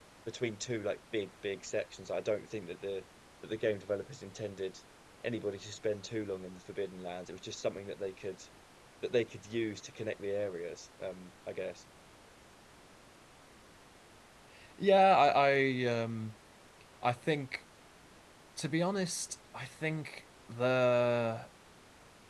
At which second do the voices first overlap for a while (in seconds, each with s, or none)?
none